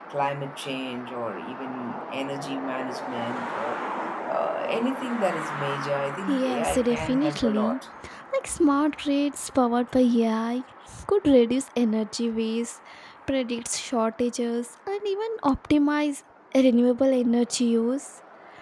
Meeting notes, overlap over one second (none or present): present